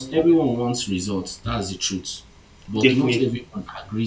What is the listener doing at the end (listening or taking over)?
listening